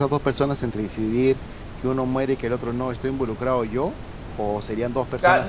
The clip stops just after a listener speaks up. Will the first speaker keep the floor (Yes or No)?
No